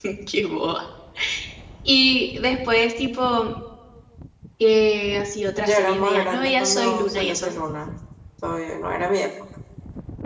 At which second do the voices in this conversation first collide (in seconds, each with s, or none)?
5.6 s